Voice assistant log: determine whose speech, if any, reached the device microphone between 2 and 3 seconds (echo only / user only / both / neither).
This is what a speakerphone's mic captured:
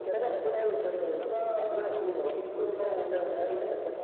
echo only